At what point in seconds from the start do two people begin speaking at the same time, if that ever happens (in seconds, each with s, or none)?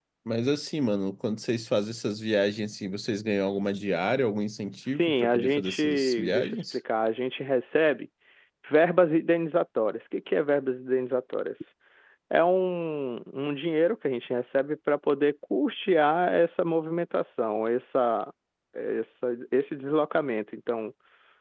4.8 s